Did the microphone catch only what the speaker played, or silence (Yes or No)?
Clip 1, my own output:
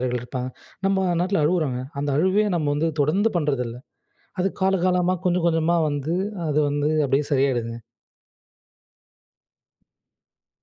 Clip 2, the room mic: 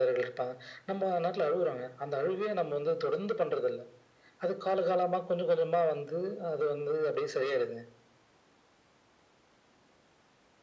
Yes